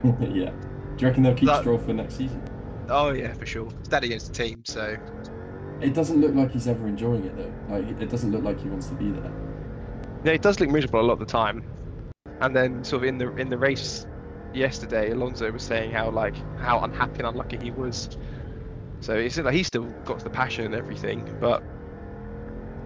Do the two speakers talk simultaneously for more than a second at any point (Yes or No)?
No